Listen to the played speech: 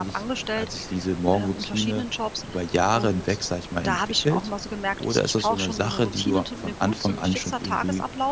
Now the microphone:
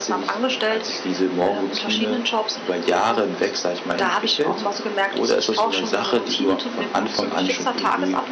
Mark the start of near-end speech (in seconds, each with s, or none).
none